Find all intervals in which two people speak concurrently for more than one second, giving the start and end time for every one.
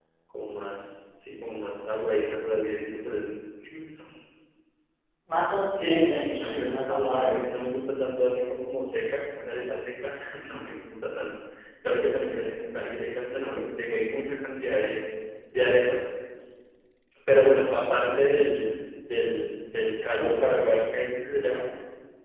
5.9-7.4

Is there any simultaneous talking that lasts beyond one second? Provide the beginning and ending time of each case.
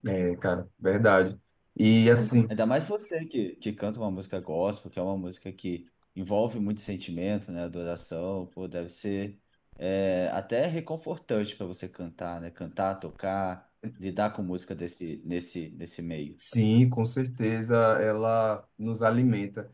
none

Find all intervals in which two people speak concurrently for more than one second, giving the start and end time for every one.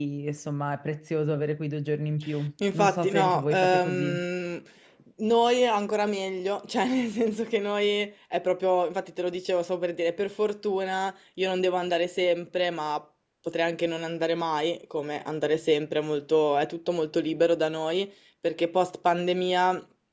2.7-4.2

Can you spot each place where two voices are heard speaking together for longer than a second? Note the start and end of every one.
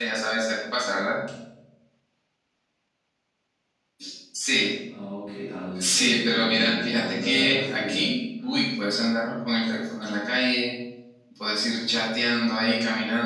5.8-8.0

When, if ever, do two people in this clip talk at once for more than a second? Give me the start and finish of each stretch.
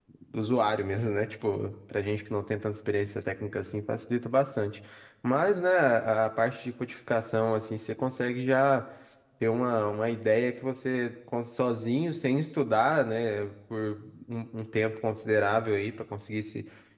none

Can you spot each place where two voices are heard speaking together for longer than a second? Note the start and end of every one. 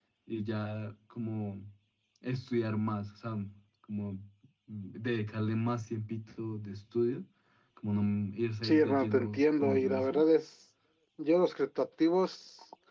8.6-10.2

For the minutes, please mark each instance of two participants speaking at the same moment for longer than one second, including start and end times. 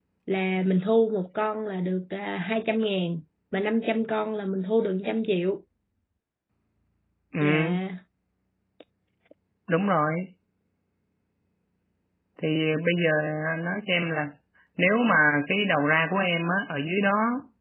none

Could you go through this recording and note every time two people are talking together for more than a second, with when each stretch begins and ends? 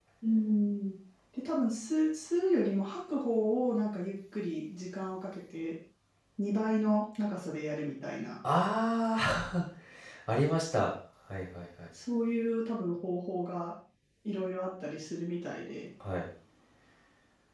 none

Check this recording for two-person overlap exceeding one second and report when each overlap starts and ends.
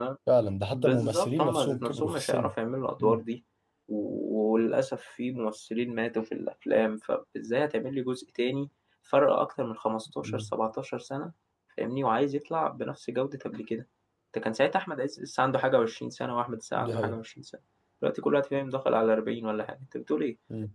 0.7-2.5

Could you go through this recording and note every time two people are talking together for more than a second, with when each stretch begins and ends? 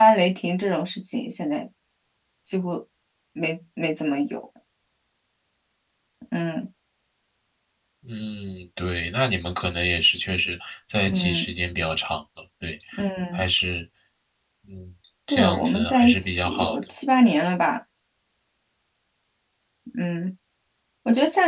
15.3-16.8

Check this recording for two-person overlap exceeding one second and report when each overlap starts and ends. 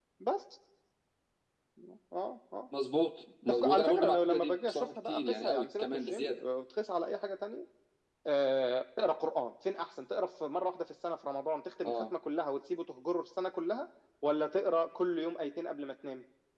3.4-6.4

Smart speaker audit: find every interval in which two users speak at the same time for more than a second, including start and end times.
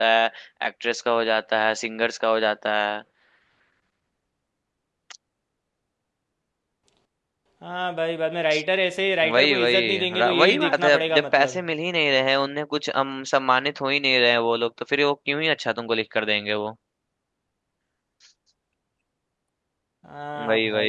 9.3-11.6

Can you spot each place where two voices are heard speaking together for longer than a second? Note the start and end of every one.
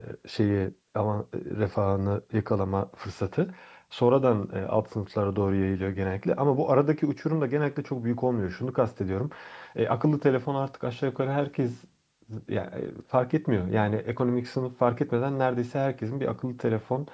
none

